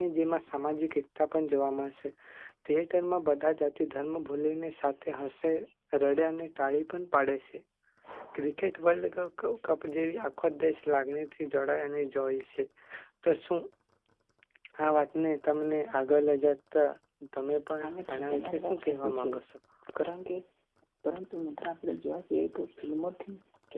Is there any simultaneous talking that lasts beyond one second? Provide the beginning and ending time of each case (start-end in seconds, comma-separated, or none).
17.8-19.3